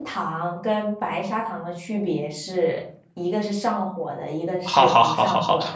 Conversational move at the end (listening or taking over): taking over